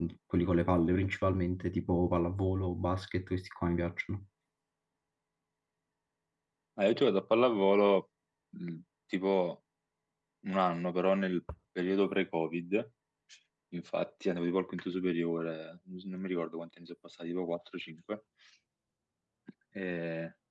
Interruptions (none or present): none